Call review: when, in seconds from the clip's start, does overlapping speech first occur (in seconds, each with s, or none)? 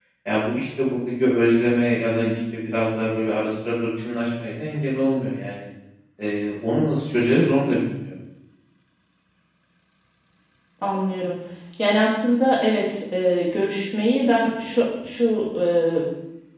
none